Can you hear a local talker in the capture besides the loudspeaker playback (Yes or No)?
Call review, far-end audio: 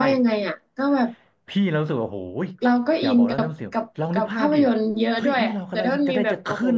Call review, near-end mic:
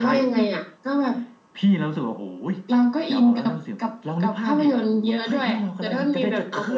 No